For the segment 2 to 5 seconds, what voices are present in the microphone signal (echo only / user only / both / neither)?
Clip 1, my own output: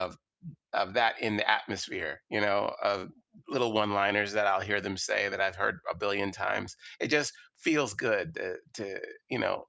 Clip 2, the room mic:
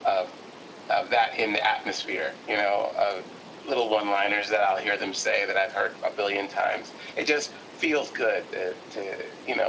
echo only